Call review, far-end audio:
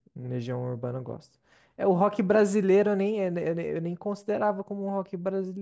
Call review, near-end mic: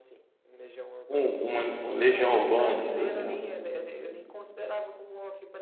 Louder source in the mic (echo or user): user